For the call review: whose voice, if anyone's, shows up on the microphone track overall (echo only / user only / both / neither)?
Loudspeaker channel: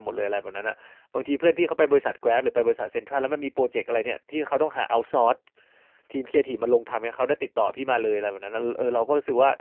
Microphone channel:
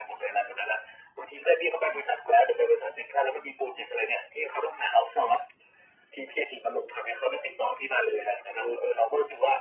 echo only